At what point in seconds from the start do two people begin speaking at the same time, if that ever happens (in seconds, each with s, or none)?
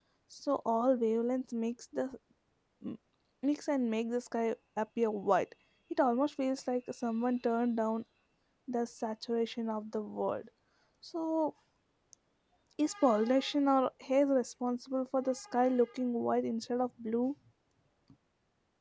none